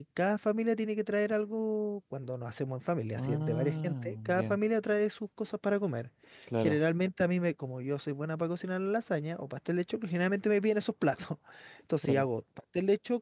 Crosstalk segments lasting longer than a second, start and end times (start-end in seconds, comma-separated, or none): 3.2-4.6